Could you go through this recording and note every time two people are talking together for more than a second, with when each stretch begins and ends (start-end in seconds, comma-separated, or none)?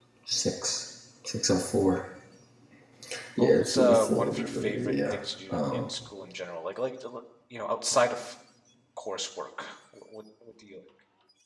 3.4-5.1